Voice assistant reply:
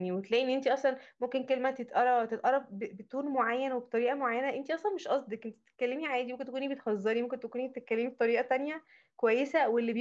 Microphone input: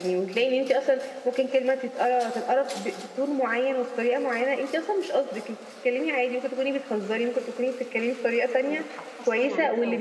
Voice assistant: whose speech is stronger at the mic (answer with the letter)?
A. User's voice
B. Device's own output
B